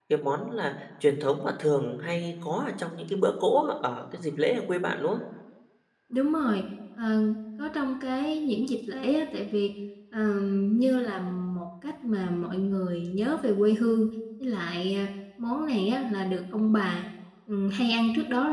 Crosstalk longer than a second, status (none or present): none